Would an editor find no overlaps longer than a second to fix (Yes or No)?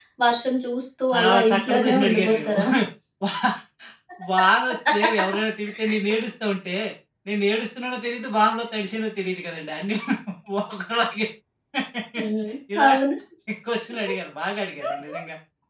No